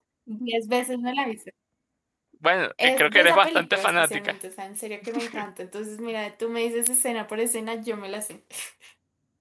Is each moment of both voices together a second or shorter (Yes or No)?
No